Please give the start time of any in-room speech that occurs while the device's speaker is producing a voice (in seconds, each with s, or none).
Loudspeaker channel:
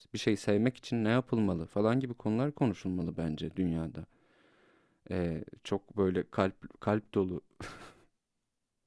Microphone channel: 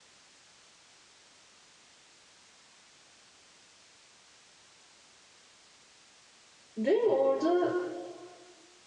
6.8 s